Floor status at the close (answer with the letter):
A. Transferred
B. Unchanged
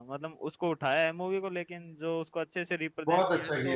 A